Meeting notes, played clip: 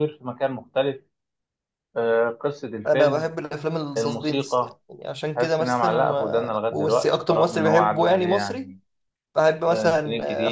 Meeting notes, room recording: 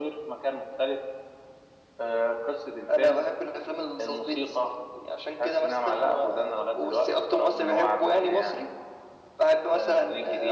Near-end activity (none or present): none